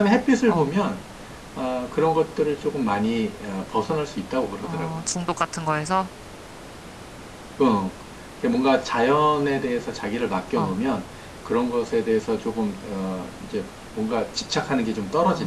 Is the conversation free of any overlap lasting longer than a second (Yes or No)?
Yes